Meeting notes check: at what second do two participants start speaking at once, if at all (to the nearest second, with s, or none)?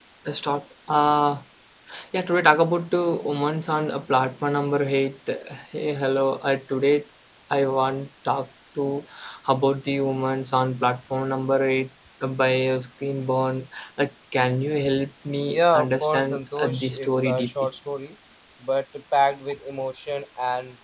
15 s